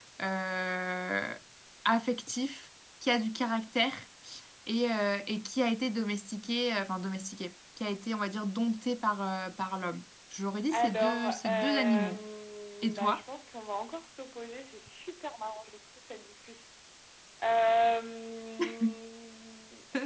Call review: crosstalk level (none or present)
present